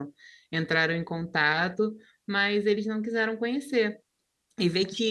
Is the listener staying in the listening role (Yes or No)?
Yes